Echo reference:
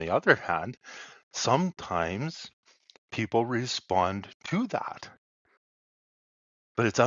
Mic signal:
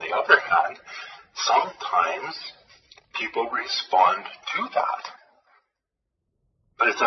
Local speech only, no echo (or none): none